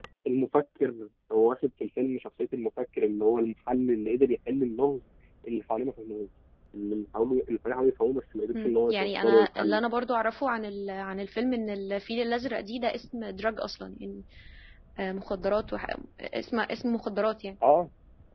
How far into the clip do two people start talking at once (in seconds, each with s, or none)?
8.5 s